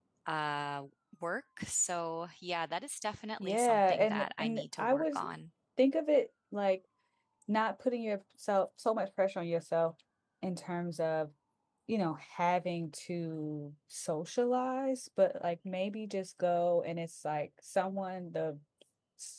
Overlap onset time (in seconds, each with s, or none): 3.4 s